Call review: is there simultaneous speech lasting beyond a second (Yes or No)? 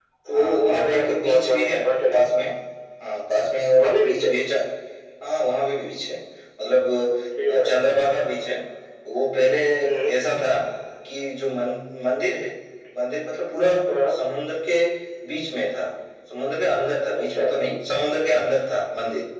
Yes